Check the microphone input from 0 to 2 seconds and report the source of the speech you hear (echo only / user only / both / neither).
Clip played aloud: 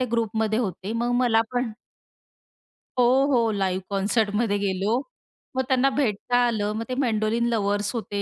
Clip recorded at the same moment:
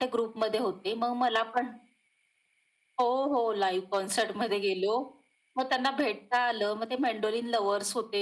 echo only